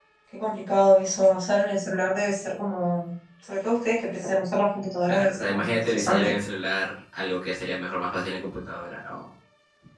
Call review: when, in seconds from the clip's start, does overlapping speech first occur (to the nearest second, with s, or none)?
5 s